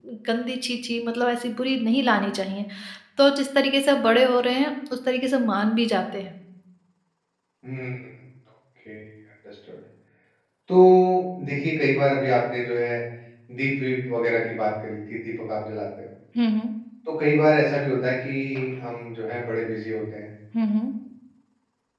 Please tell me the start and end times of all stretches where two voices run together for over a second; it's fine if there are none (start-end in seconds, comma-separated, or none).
none